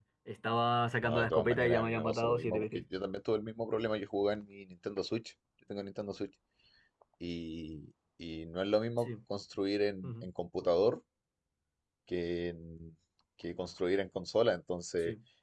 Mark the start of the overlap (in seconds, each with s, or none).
1.0 s